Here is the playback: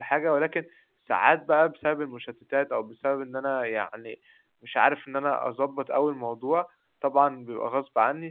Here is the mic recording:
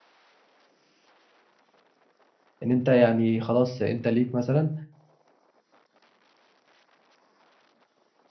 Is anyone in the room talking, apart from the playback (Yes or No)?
Yes